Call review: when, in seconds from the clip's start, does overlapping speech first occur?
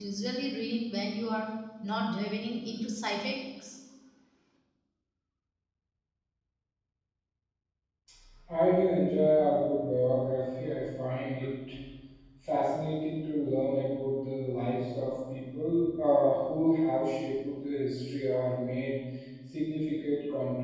none

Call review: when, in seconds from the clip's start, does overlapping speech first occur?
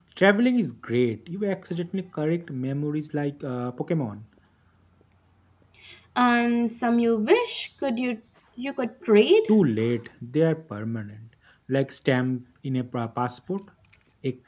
none

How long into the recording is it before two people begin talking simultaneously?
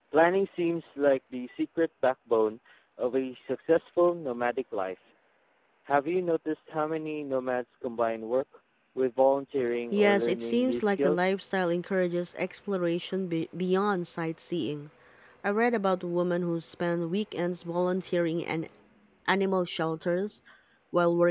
10 s

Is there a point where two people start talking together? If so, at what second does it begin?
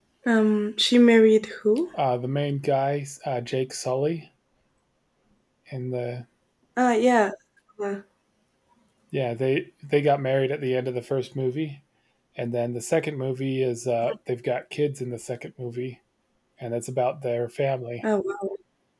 none

